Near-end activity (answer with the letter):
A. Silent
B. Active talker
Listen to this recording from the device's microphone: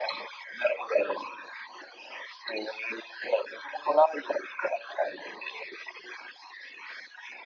A